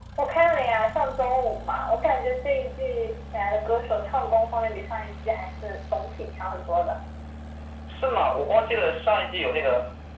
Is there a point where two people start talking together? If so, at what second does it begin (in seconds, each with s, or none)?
none